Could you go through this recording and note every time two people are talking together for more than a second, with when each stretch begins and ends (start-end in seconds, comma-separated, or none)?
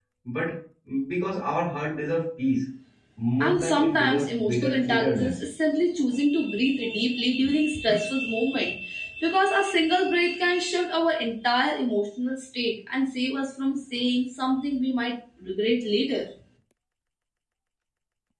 3.4-5.4